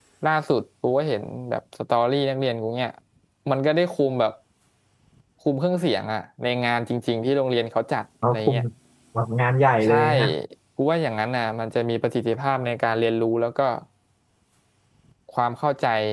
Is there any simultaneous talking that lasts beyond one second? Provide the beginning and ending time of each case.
none

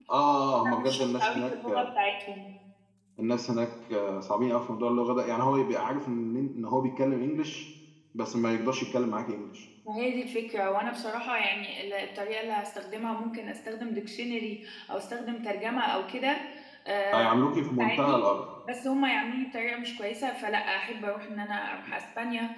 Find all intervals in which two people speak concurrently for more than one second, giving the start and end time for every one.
0.6-1.8

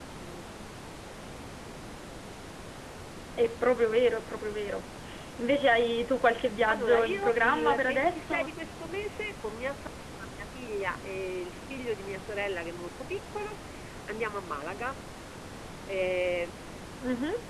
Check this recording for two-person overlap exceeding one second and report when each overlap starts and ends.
6.7-8.5

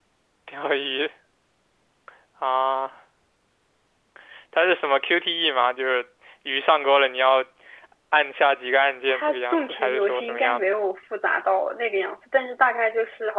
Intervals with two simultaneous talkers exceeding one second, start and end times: 9.1-10.7

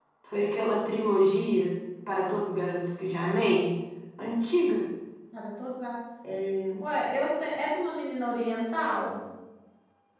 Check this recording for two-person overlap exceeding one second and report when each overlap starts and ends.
none

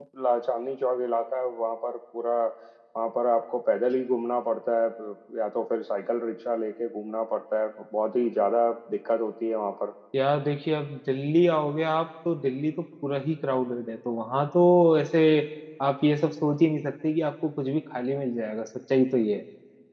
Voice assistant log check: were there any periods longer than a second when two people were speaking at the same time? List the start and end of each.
none

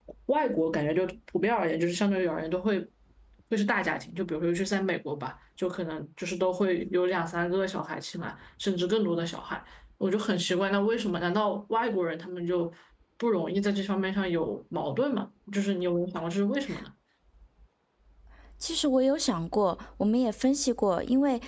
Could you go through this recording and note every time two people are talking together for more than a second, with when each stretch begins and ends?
none

